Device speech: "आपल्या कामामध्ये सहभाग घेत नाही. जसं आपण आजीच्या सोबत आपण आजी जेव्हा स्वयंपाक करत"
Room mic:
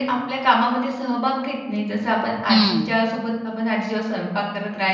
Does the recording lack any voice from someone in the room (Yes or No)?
No